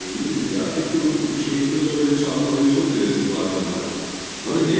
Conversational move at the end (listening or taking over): listening